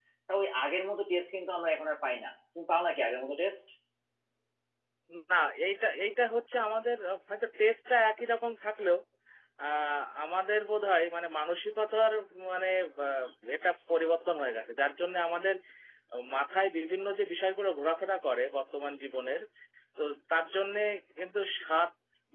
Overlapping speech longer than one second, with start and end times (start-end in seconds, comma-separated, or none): none